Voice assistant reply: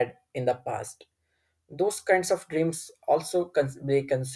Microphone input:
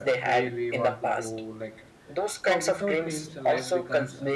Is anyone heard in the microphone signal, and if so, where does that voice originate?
both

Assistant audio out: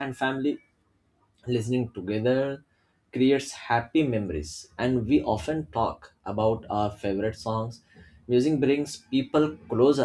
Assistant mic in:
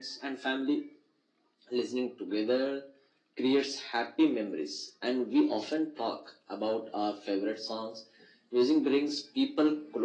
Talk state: echo only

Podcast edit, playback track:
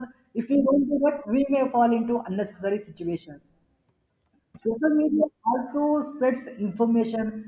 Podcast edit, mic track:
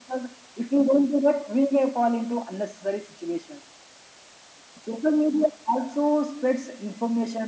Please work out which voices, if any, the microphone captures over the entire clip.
echo only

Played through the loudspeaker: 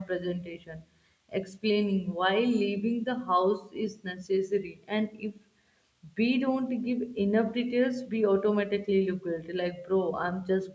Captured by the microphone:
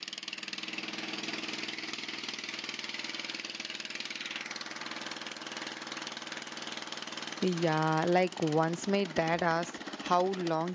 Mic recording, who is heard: user only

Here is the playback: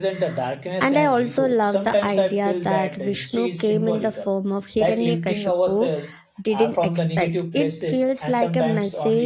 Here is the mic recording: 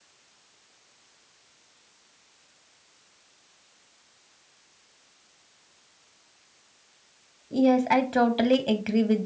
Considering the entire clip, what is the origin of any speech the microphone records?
user only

